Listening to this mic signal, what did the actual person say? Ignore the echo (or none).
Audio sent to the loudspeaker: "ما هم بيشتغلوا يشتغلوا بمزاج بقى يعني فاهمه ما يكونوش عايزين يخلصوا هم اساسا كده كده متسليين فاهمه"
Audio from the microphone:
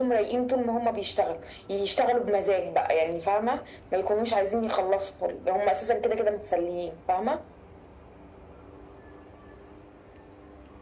none